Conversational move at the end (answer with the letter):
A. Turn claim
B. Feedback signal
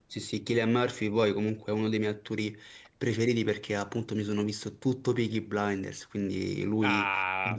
A